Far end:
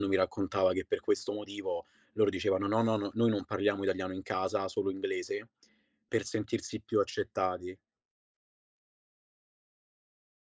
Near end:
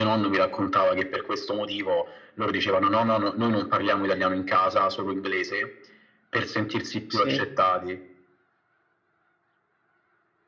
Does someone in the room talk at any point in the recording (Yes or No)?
Yes